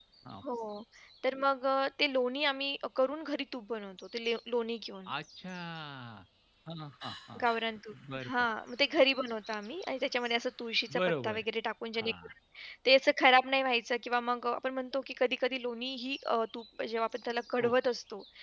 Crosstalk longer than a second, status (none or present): none